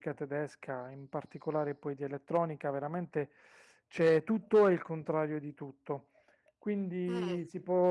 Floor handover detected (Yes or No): No